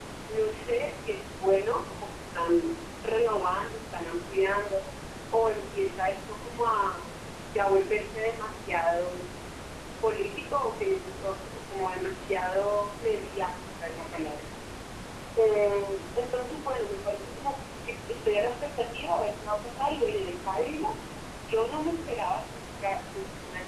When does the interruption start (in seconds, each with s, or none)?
none